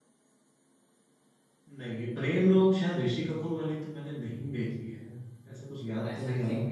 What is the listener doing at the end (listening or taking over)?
taking over